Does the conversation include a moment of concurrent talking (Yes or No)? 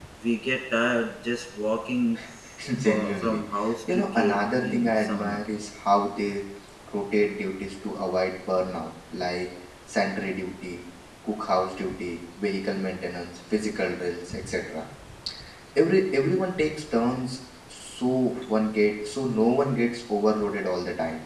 Yes